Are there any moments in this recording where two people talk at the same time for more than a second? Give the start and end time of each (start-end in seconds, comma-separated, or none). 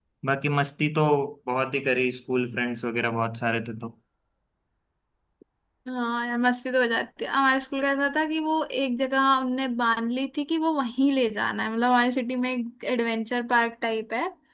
none